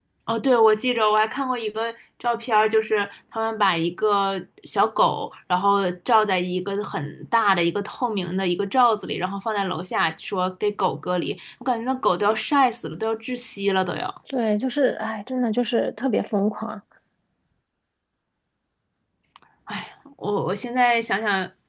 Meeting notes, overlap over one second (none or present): none